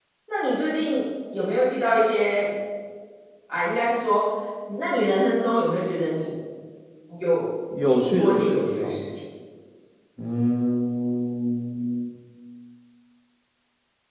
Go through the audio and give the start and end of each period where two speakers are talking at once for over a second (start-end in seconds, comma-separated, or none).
7.8-9.0